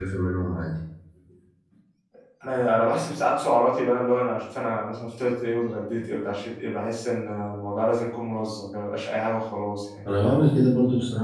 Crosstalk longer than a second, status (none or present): none